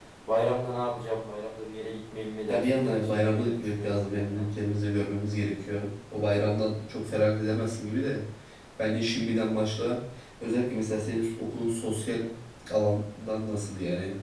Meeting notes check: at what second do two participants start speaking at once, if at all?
2.5 s

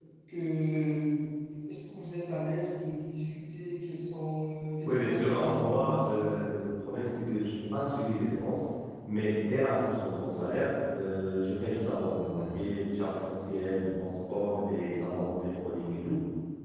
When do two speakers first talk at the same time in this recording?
4.8 s

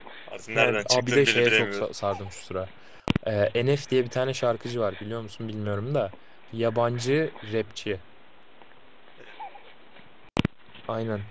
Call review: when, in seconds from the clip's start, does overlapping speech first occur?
0.5 s

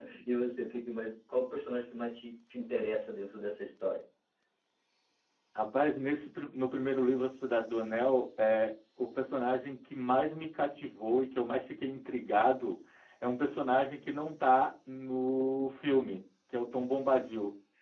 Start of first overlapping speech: none

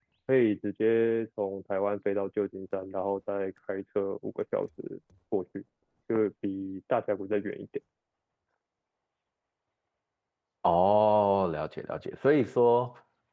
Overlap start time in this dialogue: none

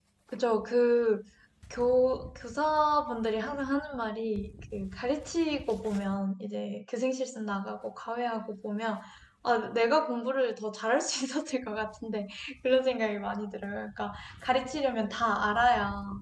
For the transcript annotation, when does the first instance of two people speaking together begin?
none

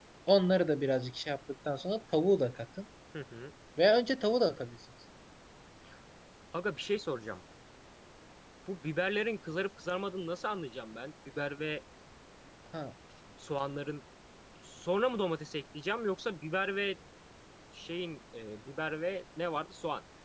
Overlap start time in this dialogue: none

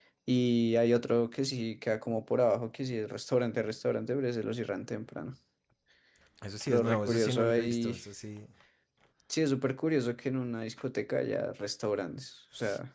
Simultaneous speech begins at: 6.7 s

